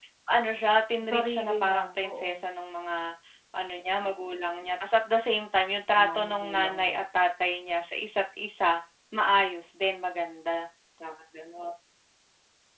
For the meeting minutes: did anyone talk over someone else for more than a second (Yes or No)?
Yes